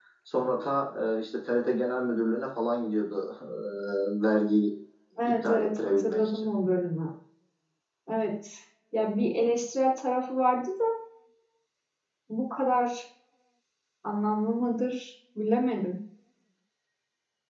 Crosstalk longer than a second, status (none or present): present